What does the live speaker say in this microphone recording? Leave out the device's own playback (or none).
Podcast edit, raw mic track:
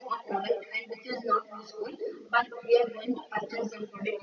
none